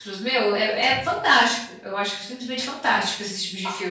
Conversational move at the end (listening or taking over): taking over